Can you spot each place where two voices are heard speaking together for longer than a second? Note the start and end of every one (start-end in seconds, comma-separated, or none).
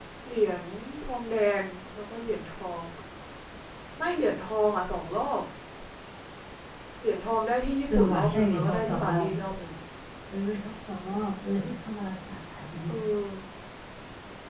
7.9-9.3